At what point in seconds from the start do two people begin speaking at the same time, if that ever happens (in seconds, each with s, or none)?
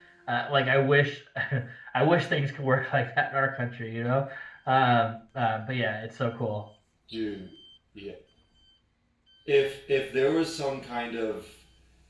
none